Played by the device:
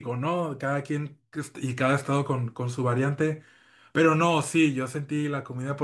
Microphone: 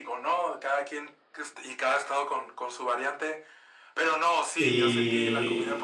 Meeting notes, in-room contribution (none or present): present